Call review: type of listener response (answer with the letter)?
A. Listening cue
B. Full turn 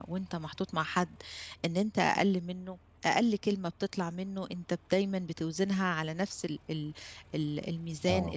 A